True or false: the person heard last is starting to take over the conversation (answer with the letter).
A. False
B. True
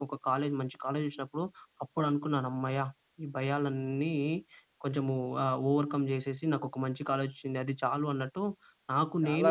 B